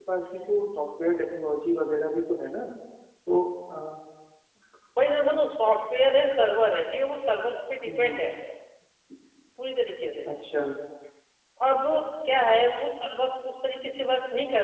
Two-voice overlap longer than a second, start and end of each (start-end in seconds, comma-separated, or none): none